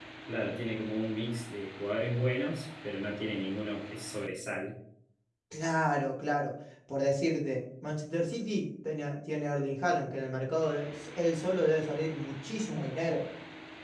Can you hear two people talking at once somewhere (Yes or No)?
No